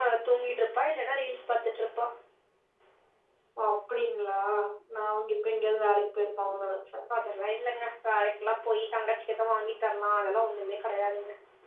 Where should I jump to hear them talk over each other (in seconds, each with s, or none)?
none